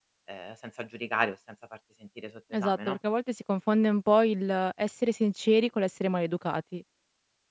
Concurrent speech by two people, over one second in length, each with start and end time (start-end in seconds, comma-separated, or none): none